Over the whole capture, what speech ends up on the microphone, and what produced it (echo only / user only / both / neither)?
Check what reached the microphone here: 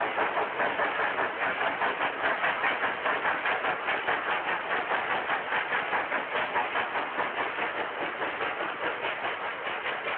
neither